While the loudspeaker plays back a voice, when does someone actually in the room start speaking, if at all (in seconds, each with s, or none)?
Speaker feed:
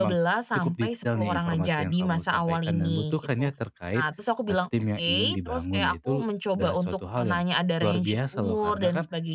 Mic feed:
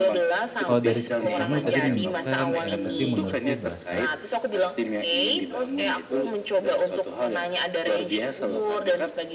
0.6 s